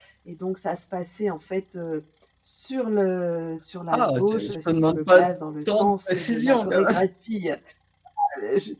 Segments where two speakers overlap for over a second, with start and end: 3.9-5.2, 5.7-7.0

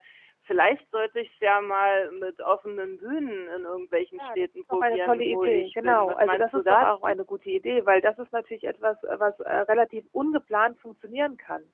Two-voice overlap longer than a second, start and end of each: 4.2-7.2

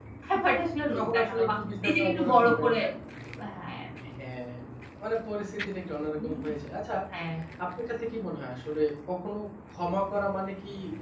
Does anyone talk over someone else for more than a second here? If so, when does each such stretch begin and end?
0.9-2.7

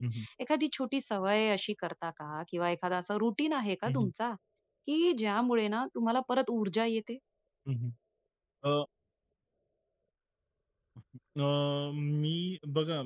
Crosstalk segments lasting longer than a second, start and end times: none

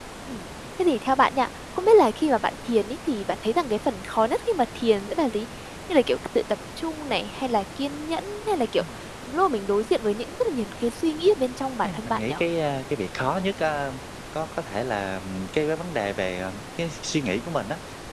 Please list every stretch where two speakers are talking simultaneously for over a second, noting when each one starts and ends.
none

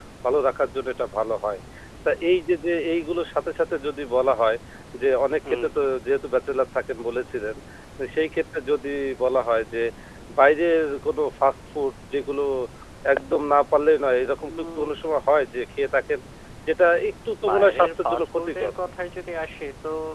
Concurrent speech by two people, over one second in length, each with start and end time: 17.5-18.7

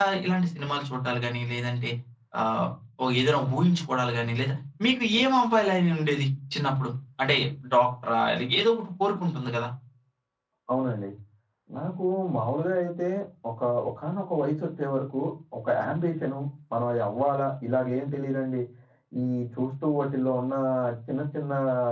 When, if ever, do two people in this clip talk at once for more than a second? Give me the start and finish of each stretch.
none

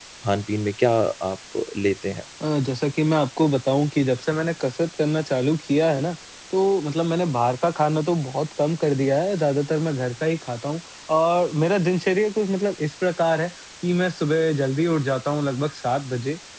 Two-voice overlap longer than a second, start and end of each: none

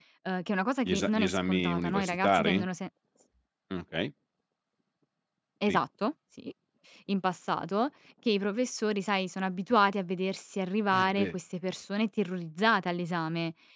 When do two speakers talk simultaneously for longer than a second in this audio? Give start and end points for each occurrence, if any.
0.8-2.6

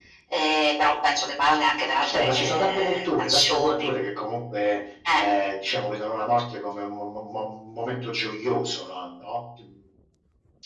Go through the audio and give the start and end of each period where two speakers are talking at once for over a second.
2.1-3.9

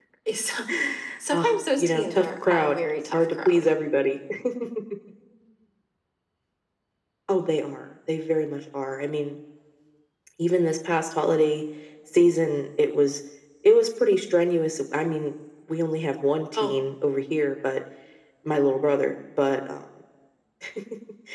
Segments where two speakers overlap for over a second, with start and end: 1.3-3.7

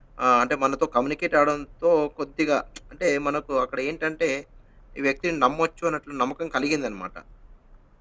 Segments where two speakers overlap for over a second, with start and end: none

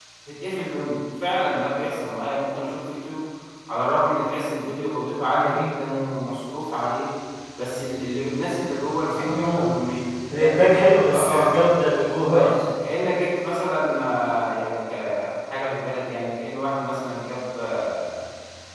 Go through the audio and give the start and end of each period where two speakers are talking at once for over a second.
none

